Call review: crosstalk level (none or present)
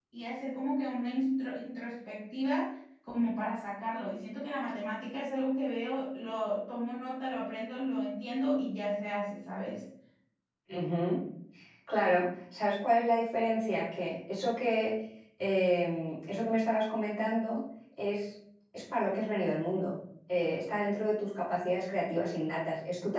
none